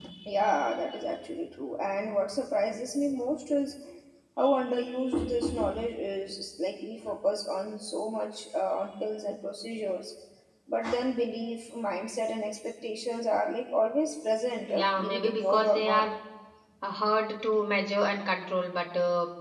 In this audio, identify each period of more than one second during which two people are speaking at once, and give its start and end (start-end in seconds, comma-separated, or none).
14.7-16.1